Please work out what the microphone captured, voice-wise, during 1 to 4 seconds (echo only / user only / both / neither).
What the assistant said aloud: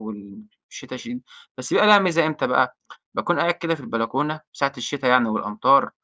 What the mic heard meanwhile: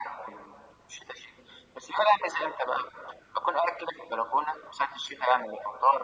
echo only